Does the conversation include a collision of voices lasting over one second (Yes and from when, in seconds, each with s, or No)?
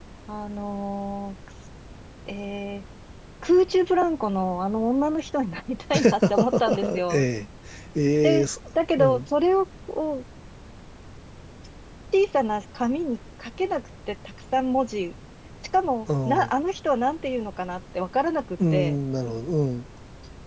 Yes, from 5.9 s